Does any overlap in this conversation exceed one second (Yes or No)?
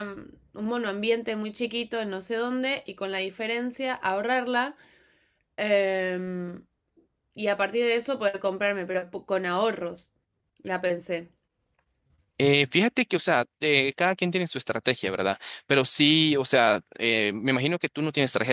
No